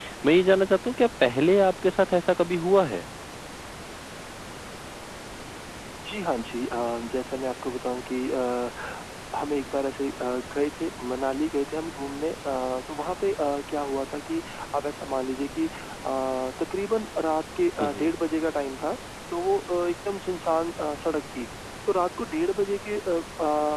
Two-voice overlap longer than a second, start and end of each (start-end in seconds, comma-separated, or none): none